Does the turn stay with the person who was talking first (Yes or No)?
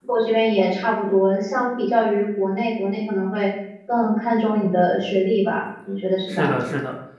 No